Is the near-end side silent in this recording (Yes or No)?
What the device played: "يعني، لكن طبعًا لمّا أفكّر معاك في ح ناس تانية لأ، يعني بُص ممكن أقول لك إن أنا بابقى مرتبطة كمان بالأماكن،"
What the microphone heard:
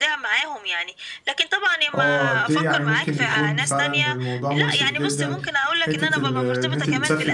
No